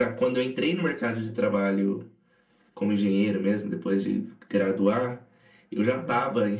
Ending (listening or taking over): listening